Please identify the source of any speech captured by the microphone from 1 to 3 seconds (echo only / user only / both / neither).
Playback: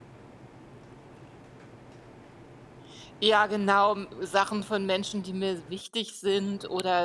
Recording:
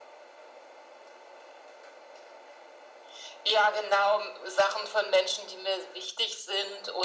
neither